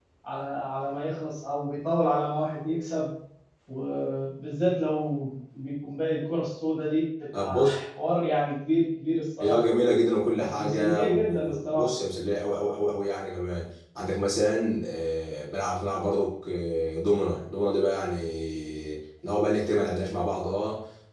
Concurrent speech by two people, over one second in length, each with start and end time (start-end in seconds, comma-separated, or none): 10.4-11.9